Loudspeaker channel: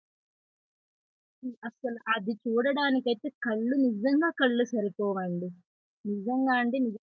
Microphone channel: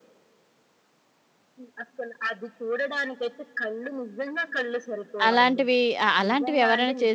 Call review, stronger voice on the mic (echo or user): user